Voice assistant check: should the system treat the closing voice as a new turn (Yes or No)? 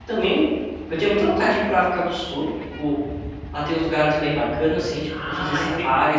Yes